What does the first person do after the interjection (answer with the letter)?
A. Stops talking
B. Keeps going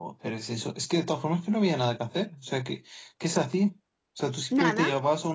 B